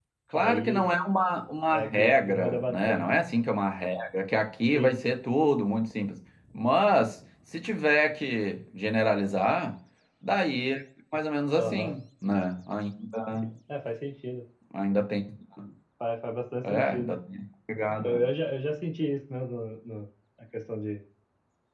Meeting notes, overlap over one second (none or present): present